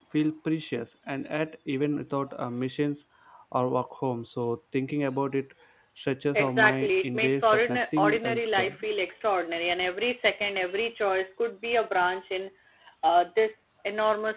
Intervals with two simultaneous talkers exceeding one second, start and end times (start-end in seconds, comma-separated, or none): 6.3-8.8